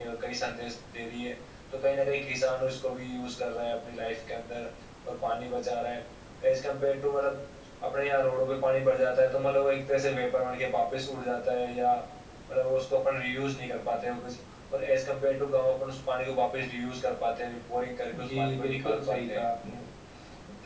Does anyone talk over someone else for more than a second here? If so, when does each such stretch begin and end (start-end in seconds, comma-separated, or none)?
18.1-19.4